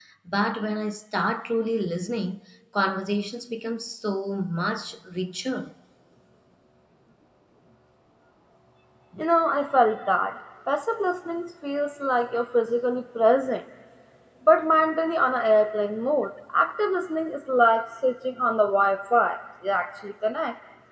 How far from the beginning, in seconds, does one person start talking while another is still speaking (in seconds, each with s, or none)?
none